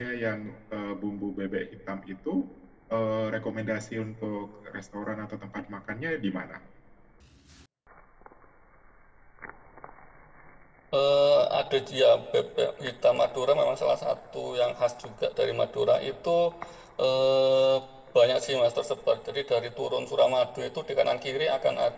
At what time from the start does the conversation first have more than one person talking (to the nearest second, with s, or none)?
none